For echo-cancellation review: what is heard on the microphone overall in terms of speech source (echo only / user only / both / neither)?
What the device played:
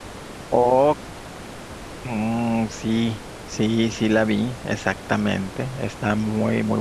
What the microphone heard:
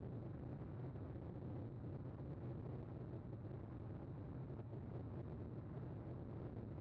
neither